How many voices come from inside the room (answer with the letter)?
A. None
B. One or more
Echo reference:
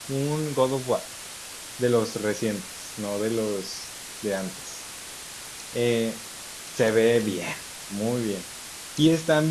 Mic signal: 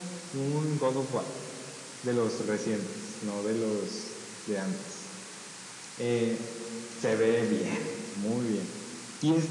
A